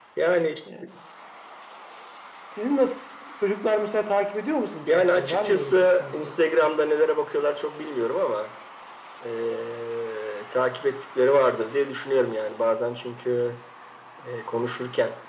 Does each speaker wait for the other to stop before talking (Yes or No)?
No